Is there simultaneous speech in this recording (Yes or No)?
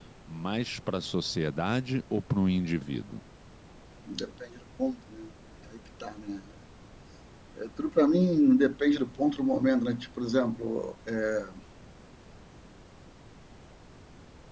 No